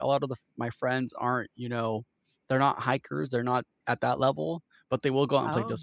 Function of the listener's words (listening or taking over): listening